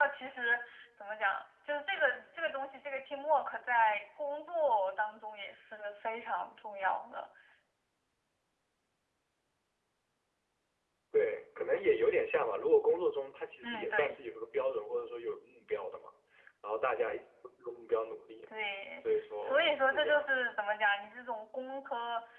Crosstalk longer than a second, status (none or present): present